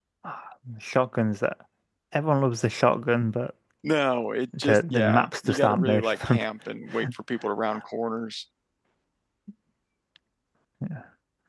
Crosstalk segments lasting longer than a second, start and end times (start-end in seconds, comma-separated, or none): 4.6-6.4